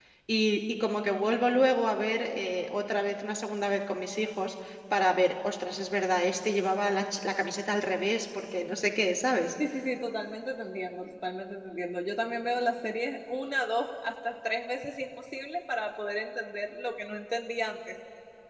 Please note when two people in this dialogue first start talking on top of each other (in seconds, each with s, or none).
none